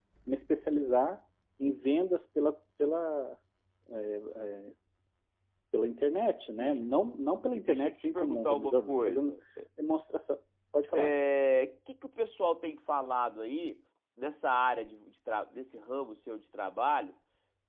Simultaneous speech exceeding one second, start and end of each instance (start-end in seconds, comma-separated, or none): 7.7-9.3